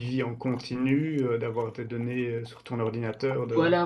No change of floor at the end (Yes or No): No